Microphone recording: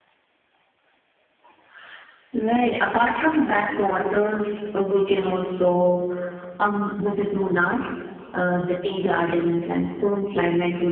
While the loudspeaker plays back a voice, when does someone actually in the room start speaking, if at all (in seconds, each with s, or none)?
none